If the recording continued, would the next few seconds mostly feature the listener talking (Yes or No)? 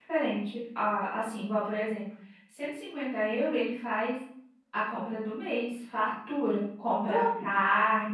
No